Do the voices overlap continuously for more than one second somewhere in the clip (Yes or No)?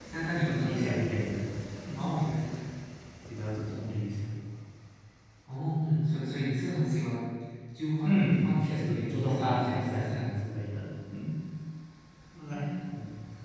Yes